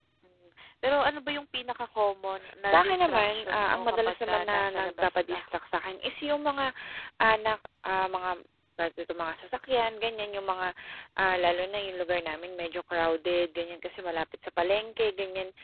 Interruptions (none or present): present